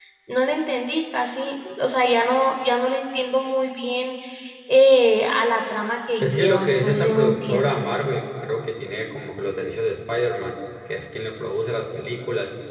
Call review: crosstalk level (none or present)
present